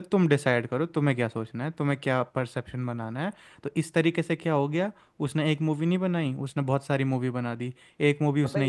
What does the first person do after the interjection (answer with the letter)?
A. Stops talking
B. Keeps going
A